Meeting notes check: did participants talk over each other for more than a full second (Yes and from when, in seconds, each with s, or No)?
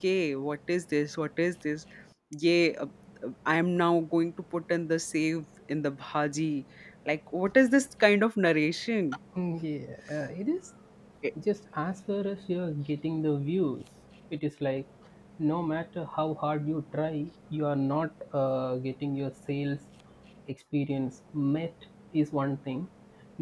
No